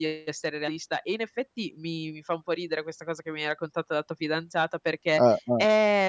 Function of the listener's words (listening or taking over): listening